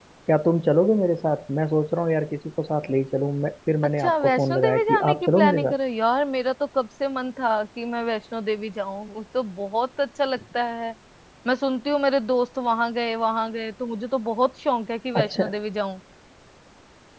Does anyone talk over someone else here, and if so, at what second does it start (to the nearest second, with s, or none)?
4 s